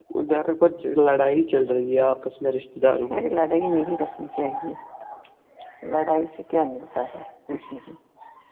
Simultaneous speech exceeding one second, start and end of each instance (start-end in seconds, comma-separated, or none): none